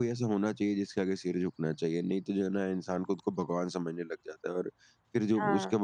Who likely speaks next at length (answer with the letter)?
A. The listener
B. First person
B